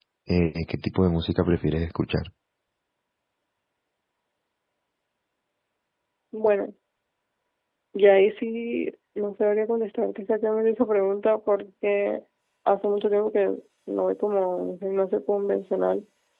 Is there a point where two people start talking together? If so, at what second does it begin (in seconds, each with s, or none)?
none